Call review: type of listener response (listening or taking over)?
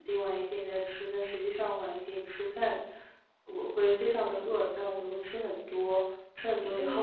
taking over